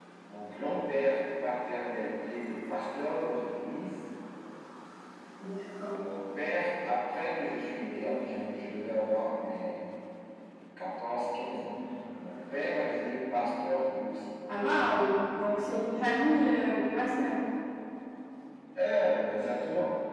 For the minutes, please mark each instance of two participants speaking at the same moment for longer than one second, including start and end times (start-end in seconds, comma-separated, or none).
none